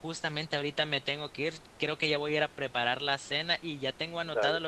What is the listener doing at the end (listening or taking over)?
listening